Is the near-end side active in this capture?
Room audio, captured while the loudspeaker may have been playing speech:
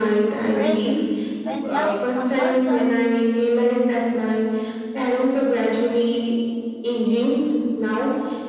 Yes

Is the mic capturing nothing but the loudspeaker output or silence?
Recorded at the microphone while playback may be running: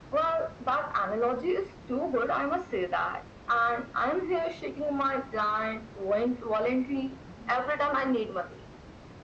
Yes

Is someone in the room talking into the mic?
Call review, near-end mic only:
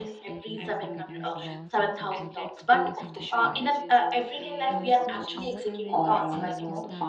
Yes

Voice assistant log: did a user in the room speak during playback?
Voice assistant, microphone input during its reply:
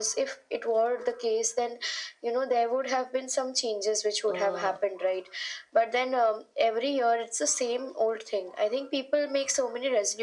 Yes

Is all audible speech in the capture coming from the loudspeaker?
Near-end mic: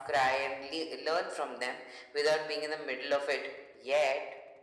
Yes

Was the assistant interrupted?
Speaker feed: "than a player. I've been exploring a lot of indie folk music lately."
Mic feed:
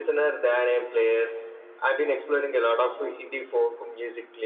No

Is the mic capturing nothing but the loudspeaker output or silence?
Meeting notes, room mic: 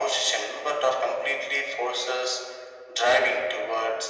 Yes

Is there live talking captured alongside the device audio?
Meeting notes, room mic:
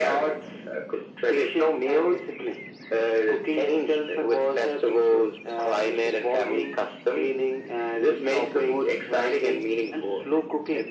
No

